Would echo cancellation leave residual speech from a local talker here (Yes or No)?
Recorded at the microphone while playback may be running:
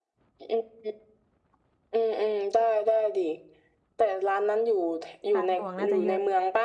Yes